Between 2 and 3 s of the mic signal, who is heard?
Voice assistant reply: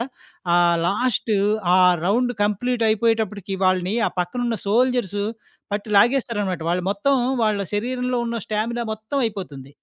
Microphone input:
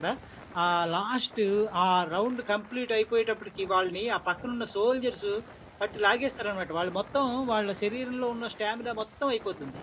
echo only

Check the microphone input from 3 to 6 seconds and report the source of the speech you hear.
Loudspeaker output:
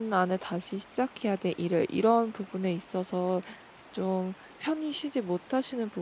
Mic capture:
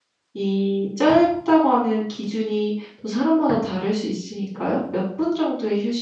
user only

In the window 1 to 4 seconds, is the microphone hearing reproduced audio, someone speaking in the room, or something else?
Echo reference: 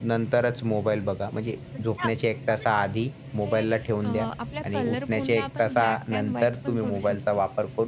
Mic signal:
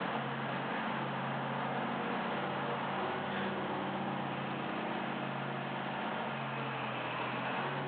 neither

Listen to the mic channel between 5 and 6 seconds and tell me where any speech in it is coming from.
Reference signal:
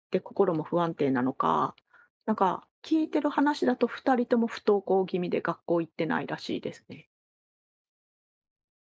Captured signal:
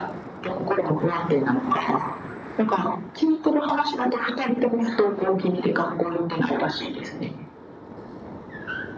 echo only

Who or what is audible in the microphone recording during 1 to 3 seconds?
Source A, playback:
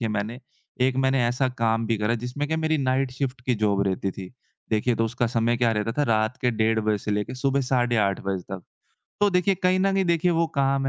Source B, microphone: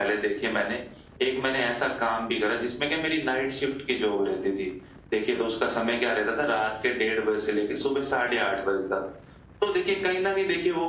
echo only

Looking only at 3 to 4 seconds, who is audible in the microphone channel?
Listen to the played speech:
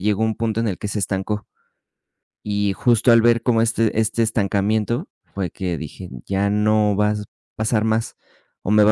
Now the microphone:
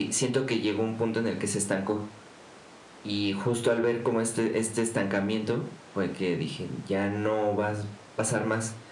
echo only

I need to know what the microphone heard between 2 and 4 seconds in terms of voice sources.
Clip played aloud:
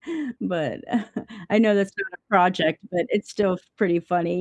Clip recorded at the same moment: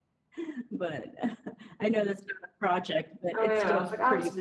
both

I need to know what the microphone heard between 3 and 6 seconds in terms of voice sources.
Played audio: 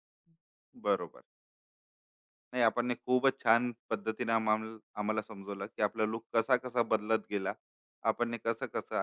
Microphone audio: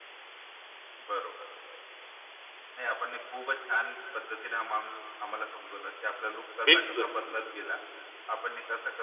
echo only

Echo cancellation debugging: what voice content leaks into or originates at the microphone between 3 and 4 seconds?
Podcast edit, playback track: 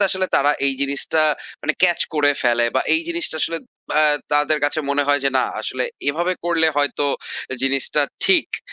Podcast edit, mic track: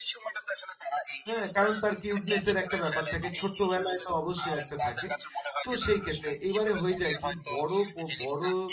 both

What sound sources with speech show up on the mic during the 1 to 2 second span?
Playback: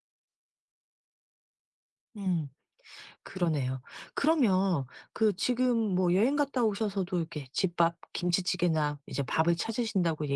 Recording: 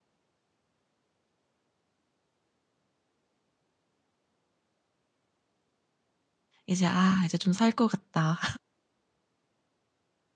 neither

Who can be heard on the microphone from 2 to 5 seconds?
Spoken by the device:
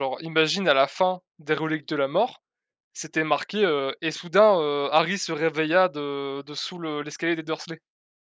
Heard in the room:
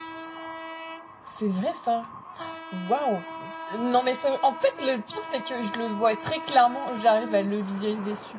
user only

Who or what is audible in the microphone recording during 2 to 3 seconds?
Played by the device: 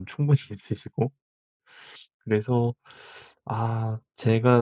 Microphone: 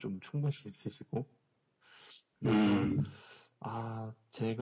both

